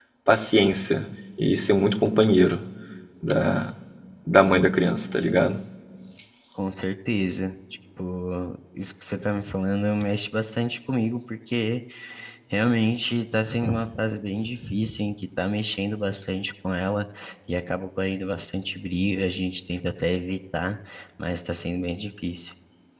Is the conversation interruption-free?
Yes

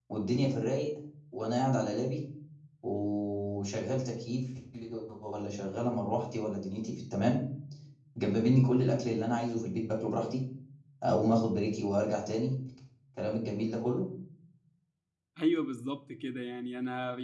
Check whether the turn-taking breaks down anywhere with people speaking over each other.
No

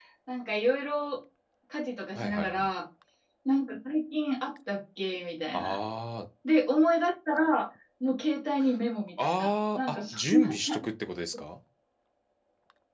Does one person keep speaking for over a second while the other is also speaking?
Yes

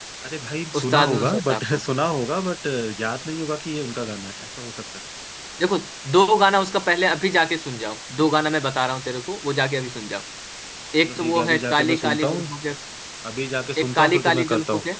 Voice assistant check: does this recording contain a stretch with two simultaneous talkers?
Yes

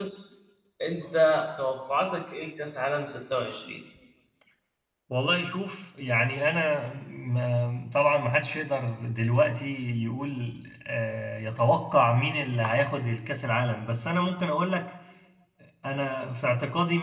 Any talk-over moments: No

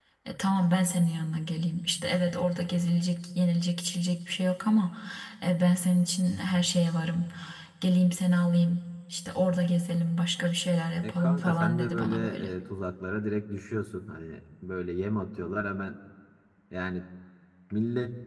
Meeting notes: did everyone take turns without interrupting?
No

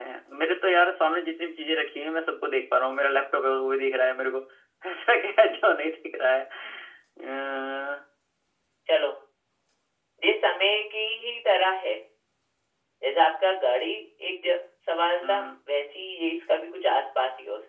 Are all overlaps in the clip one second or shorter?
Yes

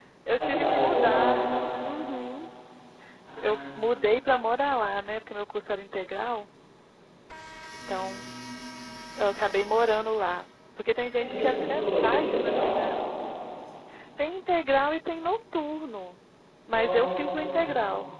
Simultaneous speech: Yes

